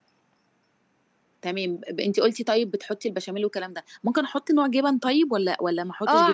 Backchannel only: No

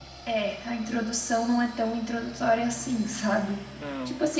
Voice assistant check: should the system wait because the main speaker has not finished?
Yes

